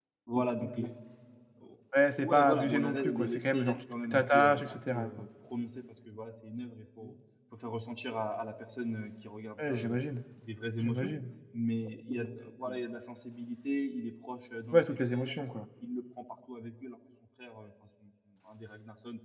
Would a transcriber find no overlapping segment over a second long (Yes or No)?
No